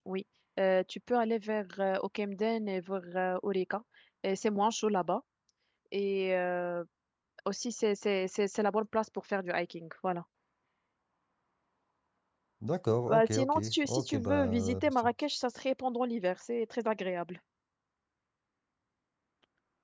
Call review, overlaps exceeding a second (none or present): present